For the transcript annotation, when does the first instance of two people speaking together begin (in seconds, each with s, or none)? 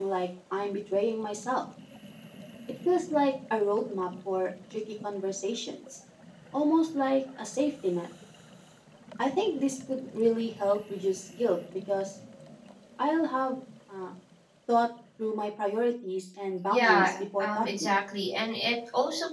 16.7 s